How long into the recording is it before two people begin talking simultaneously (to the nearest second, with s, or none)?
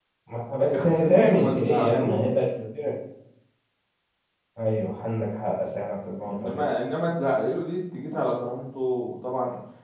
1 s